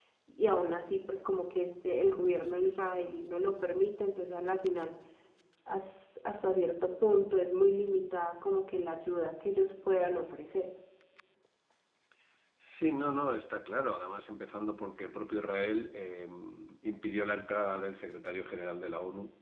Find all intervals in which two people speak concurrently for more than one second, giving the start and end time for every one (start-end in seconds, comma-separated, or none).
none